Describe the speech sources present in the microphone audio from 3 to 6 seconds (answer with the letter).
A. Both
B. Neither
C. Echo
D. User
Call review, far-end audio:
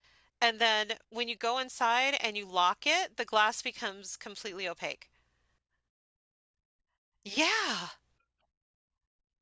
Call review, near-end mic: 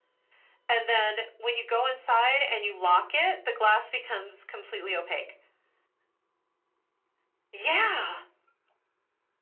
C